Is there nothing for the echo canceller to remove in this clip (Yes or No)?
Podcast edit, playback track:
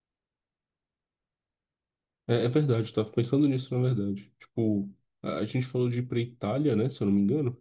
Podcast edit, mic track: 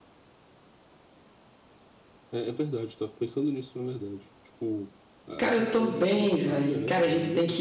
No